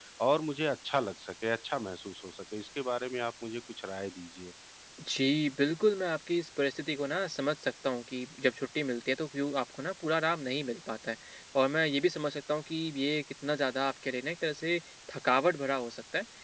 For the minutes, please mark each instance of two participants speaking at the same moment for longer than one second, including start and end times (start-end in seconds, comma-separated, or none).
none